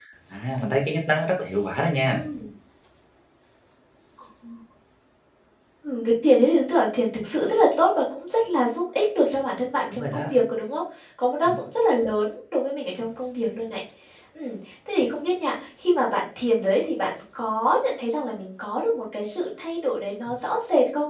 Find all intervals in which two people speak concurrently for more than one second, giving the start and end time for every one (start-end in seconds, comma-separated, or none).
none